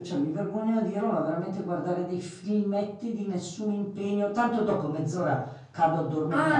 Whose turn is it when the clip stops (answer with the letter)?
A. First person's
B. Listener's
B